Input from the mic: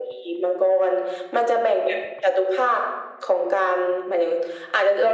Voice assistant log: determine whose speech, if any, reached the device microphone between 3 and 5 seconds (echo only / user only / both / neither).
echo only